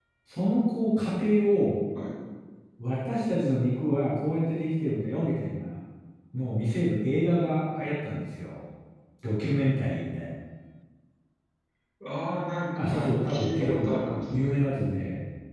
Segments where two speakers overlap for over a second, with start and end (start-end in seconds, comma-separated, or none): 12.9-14.6